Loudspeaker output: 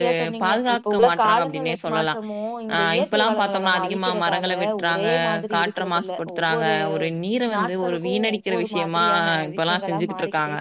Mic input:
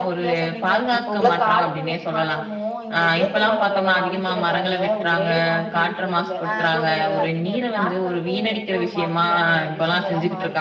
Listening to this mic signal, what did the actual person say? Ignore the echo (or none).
ஆ இன்னுமே பாத்தீங்க அப்டின்னா